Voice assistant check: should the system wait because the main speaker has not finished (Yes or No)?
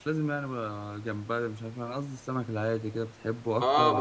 No